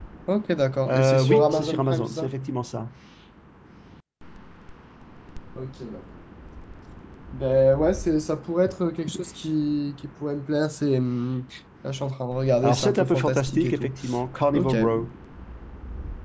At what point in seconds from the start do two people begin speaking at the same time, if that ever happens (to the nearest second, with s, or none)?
1 s